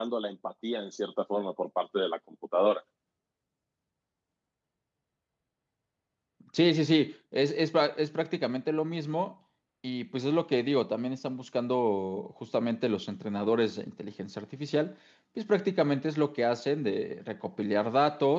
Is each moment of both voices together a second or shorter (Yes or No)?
Yes